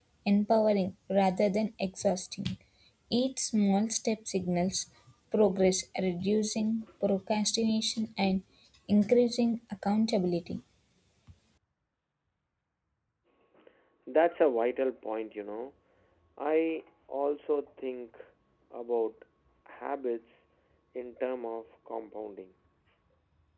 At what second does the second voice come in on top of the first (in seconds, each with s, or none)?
none